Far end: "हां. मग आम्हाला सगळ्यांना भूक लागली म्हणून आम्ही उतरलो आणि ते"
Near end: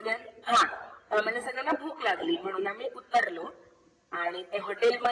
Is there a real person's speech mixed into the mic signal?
No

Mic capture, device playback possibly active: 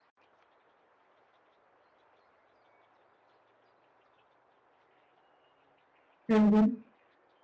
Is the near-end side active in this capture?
Yes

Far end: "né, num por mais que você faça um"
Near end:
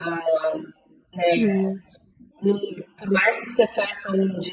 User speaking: Yes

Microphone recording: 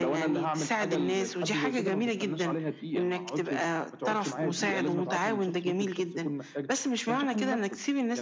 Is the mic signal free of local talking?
Yes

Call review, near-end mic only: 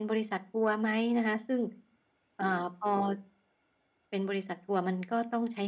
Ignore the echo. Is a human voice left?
No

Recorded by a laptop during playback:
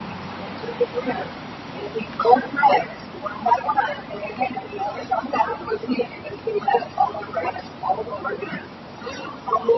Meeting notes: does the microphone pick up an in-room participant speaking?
No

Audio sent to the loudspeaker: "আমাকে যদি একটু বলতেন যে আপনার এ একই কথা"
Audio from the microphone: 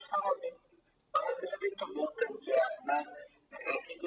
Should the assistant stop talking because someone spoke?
No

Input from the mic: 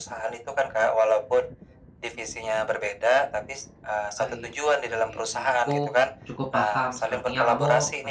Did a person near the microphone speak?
Yes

